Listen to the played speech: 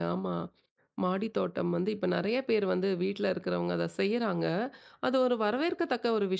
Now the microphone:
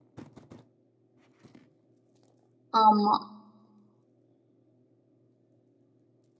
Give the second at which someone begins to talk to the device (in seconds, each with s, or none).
2.8 s